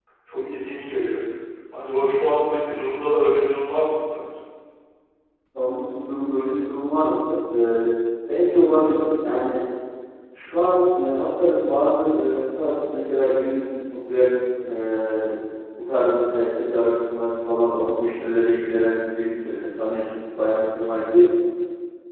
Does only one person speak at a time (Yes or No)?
Yes